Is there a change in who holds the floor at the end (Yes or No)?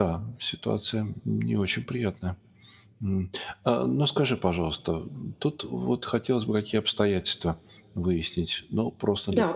No